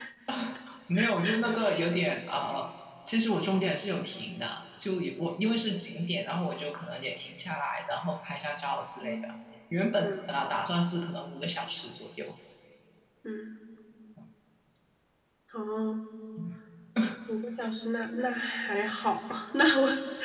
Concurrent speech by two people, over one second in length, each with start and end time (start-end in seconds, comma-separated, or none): none